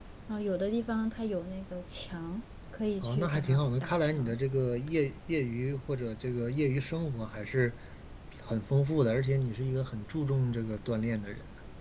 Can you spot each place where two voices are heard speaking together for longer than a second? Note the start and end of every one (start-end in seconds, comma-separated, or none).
3.0-4.4